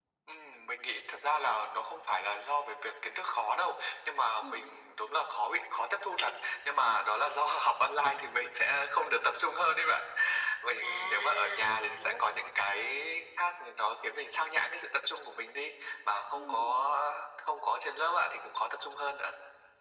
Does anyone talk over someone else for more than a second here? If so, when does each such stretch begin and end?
10.8-12.2

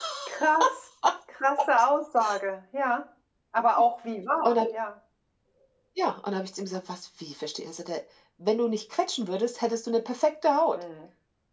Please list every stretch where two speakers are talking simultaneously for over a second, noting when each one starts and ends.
none

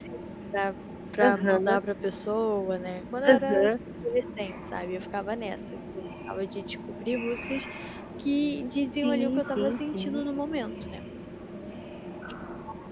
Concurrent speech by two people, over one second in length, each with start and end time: 9.0-10.2

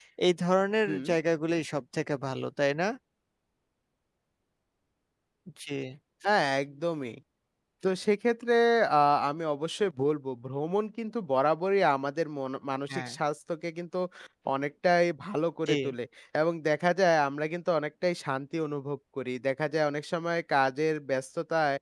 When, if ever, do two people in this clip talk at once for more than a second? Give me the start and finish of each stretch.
none

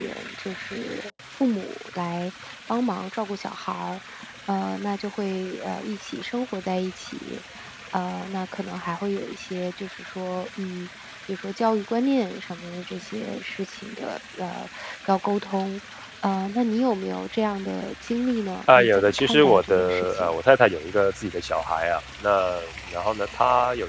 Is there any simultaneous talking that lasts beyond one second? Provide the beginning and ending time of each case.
18.8-20.3

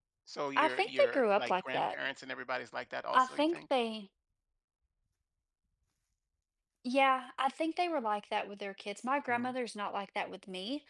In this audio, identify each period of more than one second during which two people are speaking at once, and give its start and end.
0.6-1.9

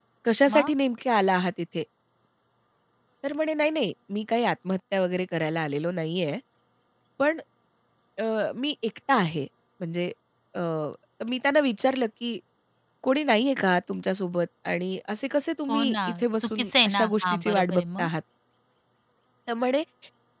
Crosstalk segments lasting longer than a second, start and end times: 16.4-18.1

